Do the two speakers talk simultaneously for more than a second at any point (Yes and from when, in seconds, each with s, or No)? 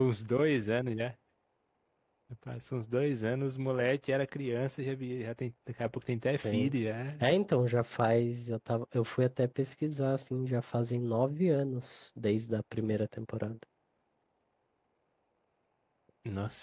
No